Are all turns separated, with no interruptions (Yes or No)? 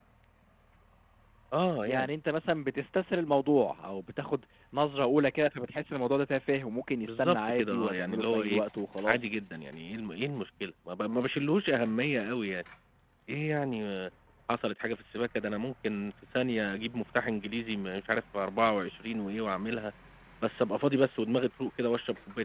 No